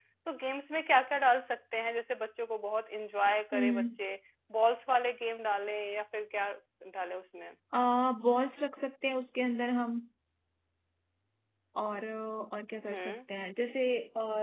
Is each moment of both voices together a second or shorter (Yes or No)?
Yes